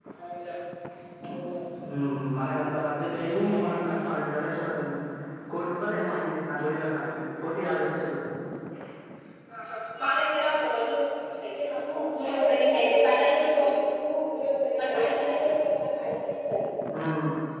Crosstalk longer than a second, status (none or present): present